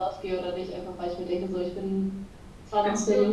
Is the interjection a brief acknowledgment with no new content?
Yes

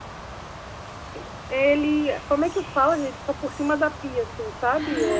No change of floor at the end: No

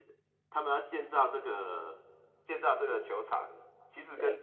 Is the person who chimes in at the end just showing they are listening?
Yes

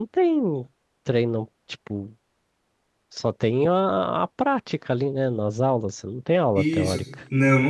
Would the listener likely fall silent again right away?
No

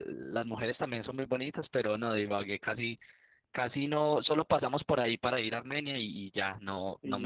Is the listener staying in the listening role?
Yes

